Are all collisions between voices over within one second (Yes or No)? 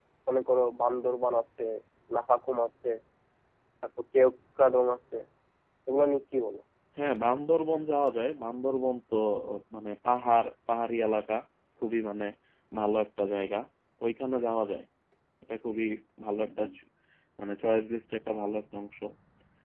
Yes